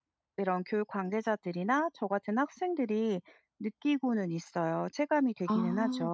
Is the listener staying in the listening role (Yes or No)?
No